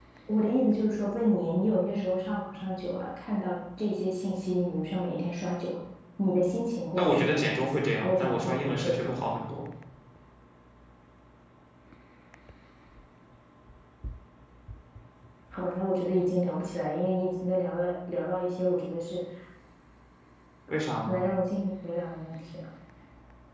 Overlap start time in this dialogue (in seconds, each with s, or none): 7.0 s